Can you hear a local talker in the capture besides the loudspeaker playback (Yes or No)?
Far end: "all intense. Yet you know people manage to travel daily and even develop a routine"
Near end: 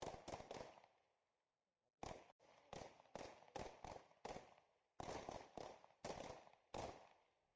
No